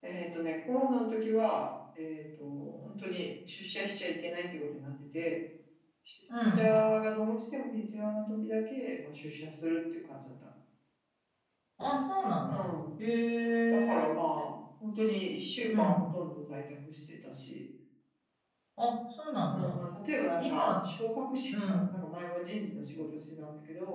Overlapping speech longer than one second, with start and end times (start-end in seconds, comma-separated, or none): none